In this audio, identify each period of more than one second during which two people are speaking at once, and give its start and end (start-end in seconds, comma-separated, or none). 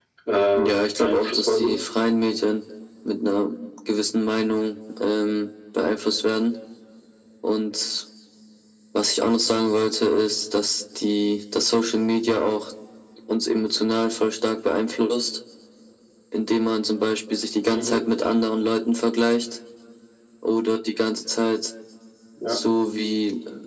0.6-1.8